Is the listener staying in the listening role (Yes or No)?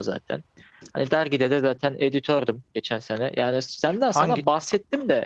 Yes